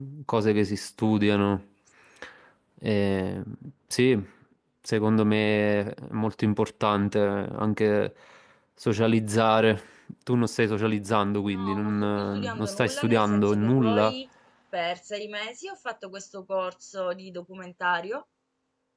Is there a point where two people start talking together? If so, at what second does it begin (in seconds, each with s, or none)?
11.5 s